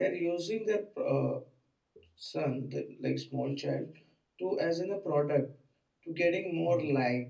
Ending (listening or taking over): listening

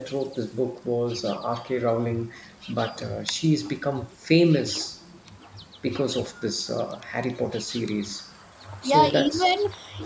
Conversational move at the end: taking over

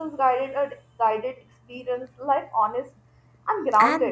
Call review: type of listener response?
taking over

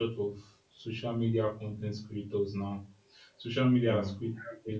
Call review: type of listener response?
listening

